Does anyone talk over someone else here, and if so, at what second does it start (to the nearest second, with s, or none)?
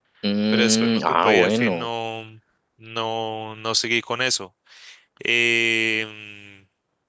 1 s